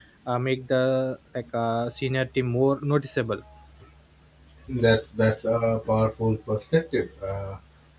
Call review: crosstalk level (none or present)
none